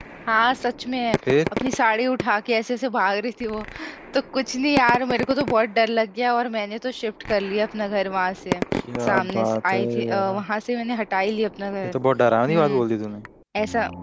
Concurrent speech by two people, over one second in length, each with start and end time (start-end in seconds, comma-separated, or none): 9.1-10.4